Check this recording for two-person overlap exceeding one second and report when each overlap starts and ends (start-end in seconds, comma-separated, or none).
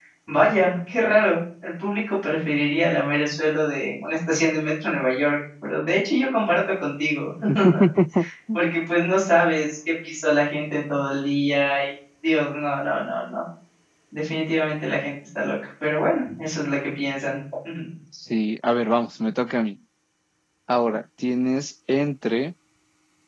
none